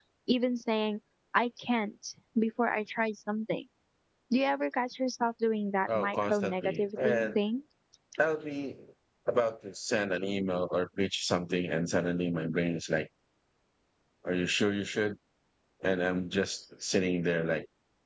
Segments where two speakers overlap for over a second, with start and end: 5.9-7.4

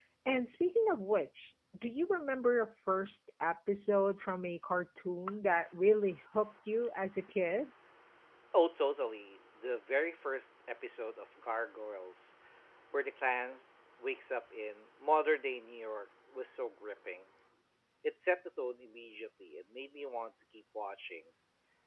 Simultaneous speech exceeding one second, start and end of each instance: none

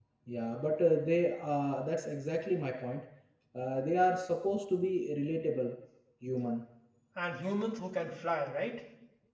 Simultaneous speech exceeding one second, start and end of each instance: none

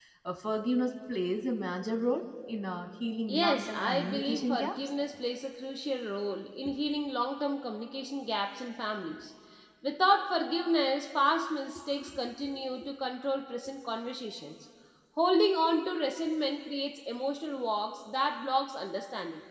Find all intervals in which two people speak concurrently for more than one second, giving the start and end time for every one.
3.3-4.8

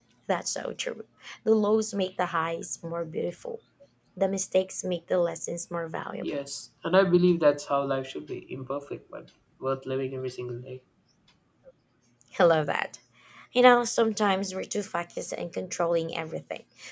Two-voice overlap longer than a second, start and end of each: none

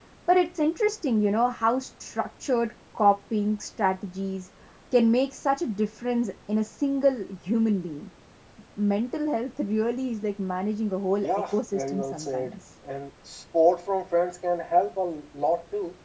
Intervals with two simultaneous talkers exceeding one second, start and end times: 11.2-12.5

